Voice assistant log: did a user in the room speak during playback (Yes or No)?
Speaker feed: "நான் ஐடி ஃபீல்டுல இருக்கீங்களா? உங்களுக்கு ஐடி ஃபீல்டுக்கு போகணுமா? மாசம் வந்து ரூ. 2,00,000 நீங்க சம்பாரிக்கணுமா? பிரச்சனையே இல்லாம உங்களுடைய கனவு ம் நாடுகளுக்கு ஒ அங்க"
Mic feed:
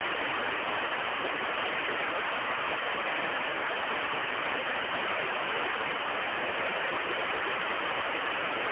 No